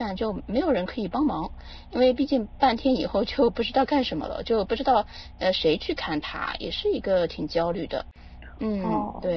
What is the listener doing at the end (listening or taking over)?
taking over